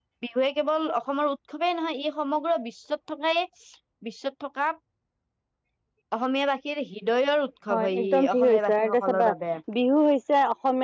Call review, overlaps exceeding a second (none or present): present